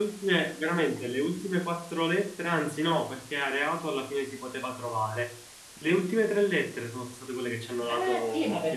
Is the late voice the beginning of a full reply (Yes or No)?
Yes